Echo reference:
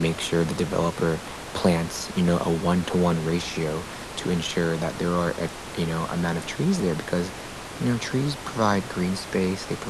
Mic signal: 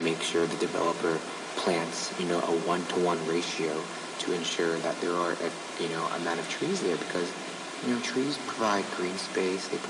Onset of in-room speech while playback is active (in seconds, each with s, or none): none